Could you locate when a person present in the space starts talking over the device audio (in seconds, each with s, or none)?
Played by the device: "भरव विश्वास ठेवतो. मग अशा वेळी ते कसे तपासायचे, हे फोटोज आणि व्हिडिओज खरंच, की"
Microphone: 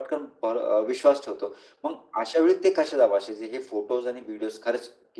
none